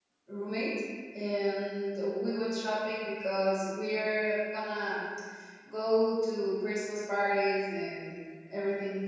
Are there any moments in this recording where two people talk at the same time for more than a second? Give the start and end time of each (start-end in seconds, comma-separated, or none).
none